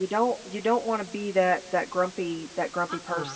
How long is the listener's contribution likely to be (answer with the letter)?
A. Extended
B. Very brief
A